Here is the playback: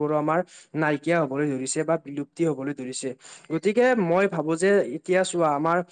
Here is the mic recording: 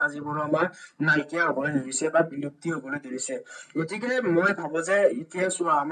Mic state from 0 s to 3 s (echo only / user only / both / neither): echo only